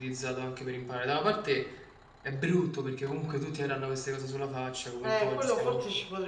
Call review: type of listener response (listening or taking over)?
taking over